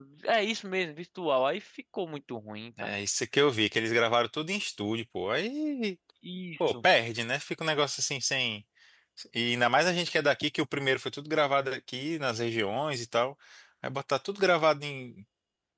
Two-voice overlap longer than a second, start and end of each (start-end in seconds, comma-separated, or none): none